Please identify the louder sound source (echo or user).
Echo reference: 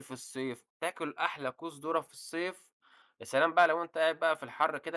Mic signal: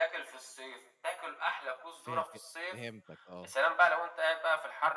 echo